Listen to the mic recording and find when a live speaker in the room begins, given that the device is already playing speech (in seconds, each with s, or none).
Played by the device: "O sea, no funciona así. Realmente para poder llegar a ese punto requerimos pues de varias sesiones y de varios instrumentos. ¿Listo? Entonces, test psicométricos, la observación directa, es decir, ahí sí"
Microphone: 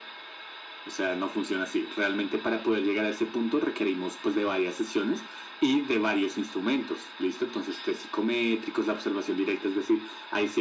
none